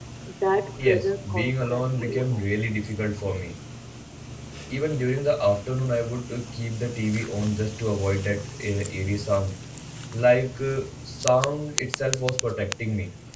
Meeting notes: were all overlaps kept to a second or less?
No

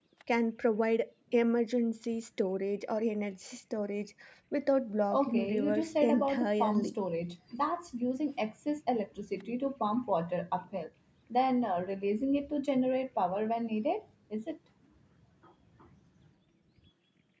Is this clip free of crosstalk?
No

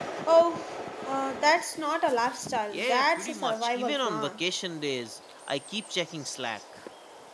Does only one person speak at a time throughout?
No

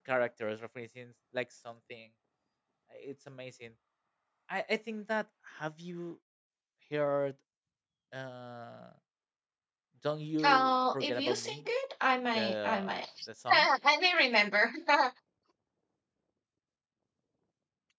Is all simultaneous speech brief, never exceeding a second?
No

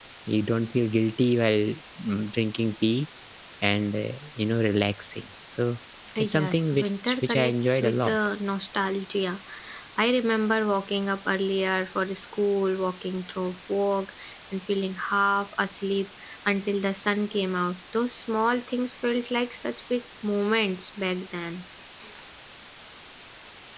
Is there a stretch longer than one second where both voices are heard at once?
Yes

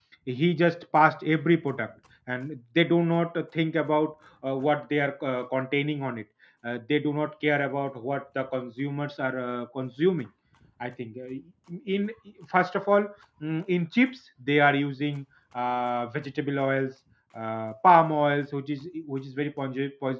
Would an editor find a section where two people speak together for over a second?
No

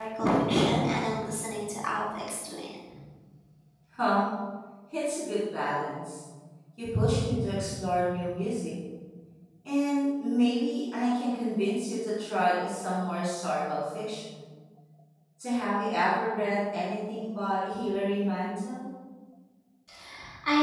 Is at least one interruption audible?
No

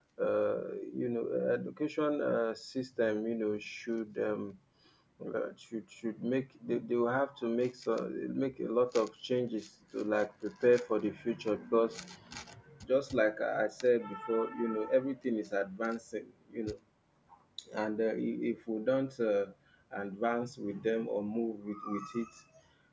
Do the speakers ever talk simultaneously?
No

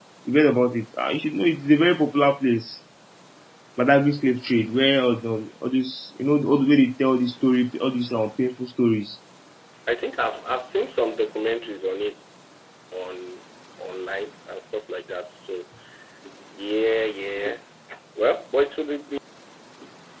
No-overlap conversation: Yes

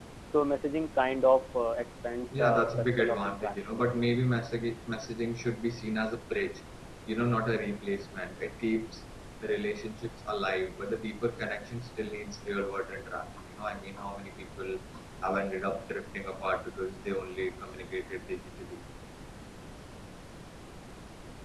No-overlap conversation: No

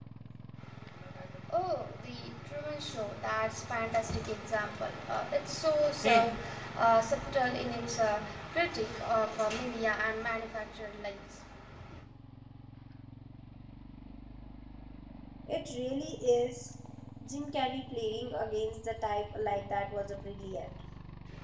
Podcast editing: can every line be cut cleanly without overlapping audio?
Yes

